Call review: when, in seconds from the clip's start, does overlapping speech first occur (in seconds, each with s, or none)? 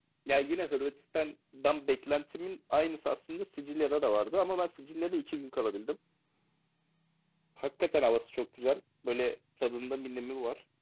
none